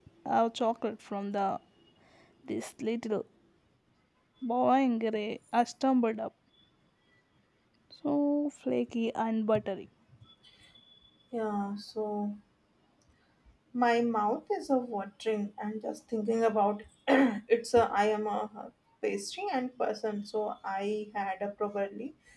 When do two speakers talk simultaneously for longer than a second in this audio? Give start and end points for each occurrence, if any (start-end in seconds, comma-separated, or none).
none